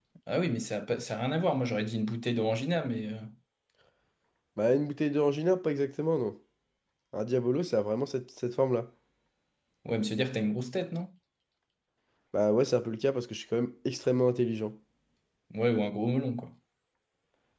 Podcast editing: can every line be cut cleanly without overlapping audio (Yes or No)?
Yes